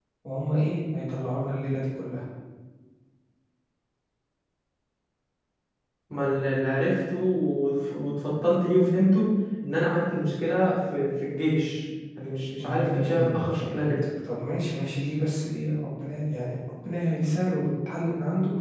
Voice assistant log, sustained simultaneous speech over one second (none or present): present